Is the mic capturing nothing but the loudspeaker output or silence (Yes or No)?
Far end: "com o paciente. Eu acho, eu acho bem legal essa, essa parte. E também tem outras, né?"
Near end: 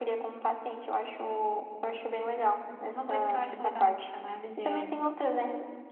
No